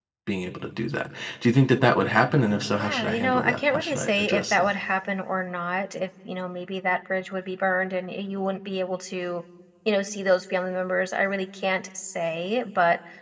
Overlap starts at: 2.8 s

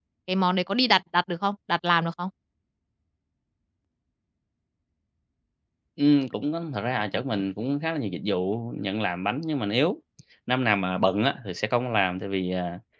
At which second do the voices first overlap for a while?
none

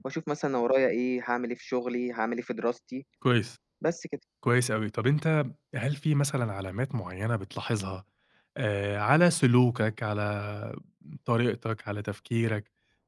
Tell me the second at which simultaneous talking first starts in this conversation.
none

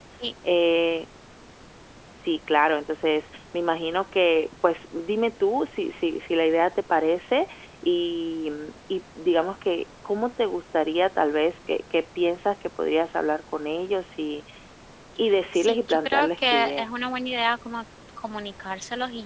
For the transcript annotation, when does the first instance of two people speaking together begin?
15.5 s

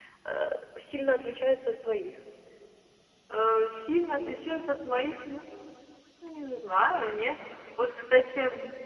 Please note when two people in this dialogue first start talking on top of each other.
none

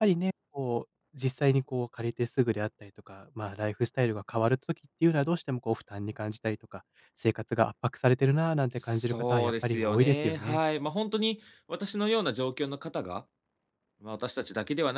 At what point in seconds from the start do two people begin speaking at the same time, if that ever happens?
8.8 s

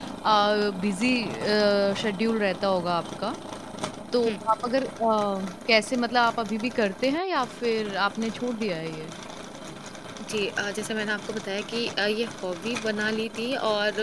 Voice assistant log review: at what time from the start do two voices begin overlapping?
none

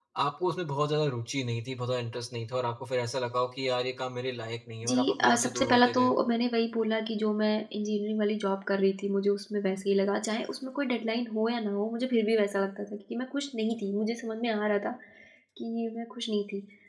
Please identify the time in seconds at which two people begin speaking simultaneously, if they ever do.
4.8 s

